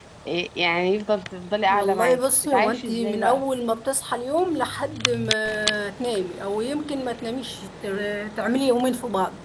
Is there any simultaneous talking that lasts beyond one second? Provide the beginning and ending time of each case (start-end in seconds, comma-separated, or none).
1.7-3.4